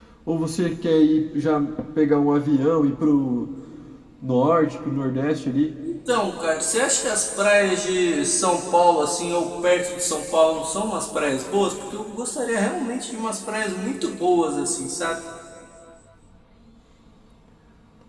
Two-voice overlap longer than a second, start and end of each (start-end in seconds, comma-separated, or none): none